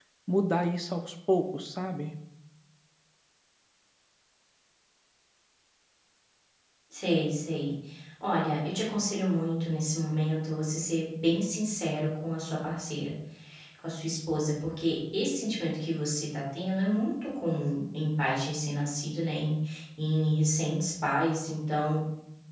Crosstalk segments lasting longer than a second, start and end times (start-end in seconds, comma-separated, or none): none